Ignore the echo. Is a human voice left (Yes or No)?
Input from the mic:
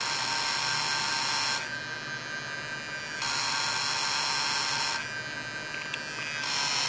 No